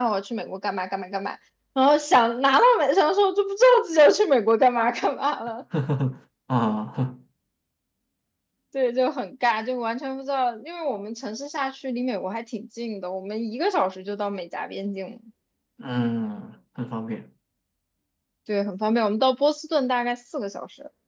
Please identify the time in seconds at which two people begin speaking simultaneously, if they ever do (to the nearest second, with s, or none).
none